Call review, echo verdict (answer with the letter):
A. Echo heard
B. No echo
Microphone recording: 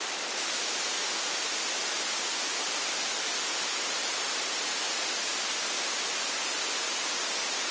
B